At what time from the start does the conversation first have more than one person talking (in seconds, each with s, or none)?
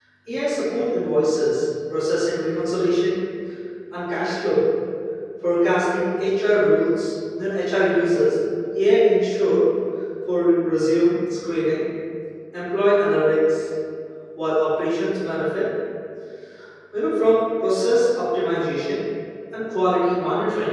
none